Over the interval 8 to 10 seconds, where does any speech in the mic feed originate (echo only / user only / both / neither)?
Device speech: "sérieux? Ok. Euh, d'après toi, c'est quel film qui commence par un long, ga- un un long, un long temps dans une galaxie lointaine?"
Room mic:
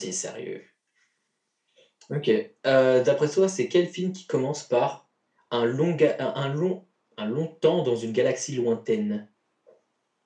echo only